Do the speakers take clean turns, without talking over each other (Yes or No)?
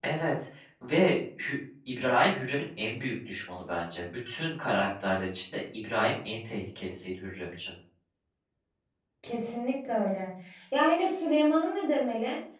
Yes